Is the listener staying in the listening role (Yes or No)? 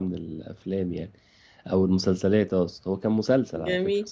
No